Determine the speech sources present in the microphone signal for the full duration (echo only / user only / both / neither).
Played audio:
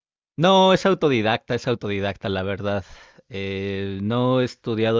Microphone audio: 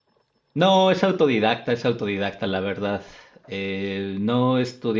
echo only